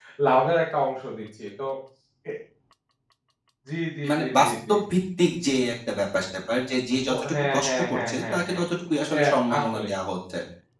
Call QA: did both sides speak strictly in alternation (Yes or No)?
No